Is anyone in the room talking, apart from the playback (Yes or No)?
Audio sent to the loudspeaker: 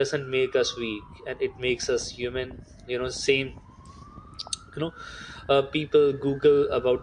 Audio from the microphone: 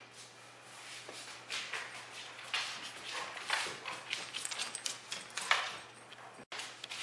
No